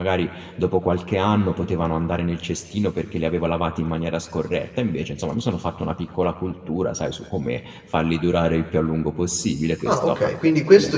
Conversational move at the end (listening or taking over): taking over